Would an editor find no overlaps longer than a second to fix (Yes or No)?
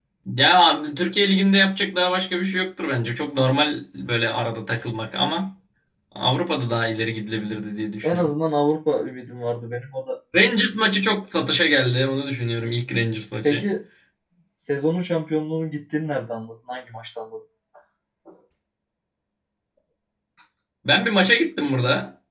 Yes